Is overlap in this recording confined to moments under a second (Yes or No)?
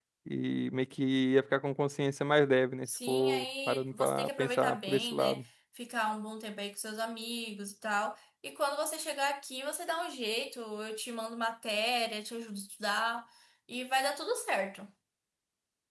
No